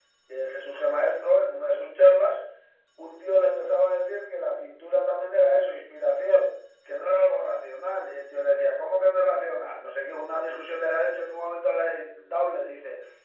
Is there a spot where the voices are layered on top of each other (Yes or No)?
No